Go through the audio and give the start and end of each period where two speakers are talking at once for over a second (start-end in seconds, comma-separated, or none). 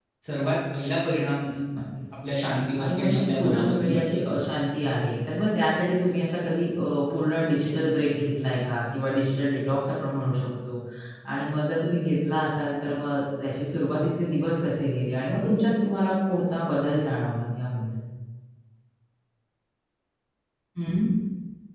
2.8-4.4